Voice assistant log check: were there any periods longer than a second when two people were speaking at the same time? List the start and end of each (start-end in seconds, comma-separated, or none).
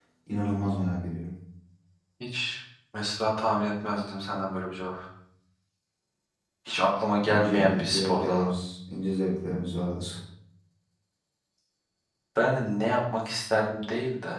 7.2-8.5